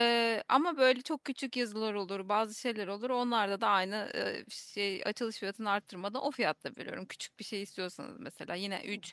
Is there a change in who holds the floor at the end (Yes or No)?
No